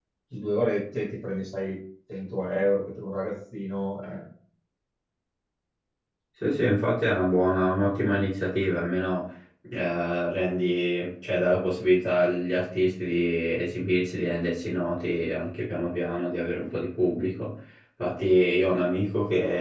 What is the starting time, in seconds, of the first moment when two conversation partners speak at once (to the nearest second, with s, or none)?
none